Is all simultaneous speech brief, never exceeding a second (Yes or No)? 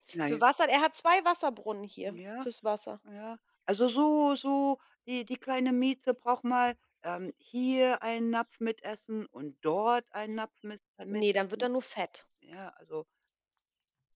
Yes